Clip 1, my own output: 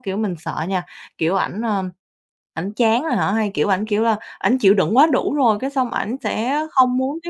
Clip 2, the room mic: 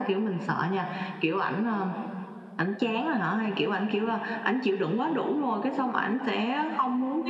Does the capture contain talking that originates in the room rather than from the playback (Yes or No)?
No